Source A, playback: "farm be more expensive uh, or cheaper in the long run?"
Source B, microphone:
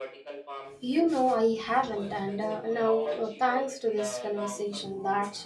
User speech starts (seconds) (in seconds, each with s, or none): 0.8 s